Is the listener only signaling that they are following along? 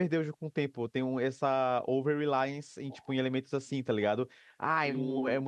Yes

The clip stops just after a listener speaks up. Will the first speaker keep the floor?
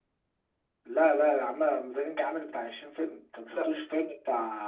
Yes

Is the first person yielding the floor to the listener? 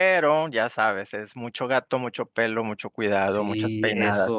Yes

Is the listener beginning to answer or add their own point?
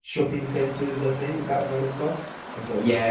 Yes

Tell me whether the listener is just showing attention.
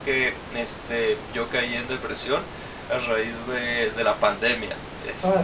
No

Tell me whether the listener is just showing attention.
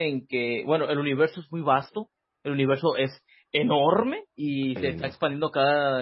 Yes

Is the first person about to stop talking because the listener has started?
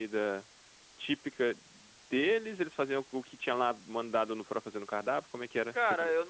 Yes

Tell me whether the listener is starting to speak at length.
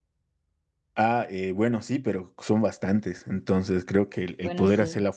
No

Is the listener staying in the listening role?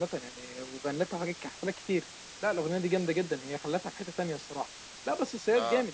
Yes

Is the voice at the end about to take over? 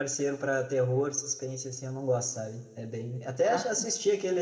No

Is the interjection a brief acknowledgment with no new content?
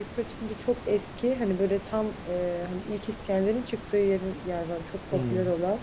Yes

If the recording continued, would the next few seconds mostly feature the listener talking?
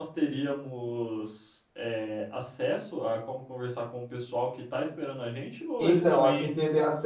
Yes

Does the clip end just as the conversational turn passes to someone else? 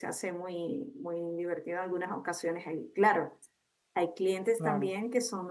No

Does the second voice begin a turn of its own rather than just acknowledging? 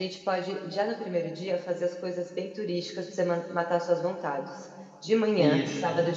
No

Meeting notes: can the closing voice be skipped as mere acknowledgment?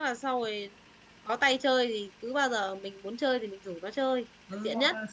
No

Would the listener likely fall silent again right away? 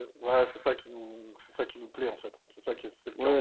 No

